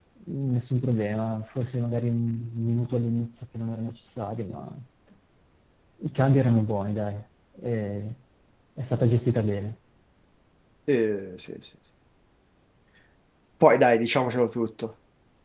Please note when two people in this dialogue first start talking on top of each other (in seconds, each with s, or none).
none